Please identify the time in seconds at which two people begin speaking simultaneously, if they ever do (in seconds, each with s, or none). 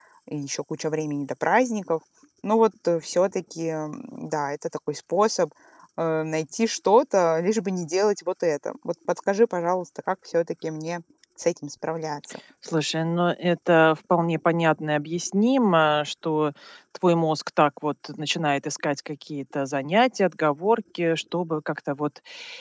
none